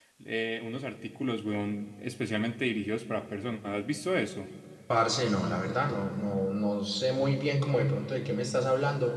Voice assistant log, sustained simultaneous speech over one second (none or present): none